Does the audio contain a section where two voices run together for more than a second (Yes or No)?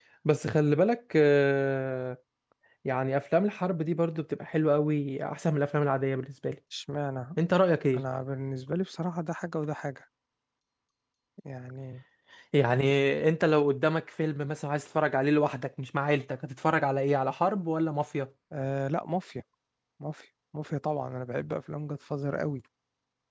No